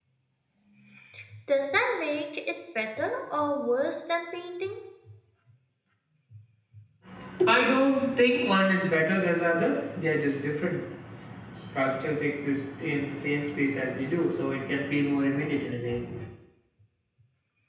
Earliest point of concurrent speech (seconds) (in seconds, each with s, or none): none